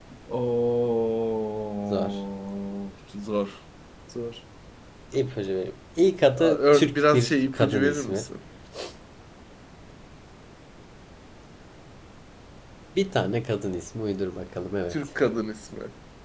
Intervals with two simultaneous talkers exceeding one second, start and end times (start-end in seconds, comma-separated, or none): 6.4-8.3